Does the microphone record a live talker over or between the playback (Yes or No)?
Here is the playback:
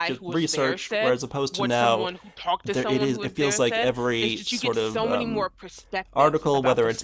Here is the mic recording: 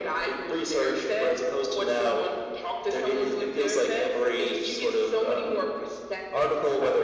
No